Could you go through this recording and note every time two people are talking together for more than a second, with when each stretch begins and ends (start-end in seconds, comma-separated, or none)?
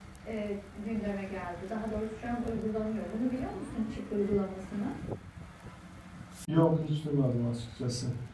none